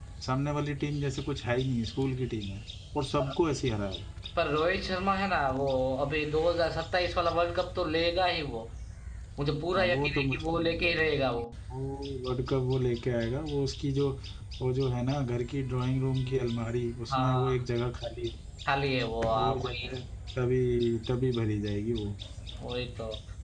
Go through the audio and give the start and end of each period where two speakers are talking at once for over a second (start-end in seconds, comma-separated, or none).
9.8-11.3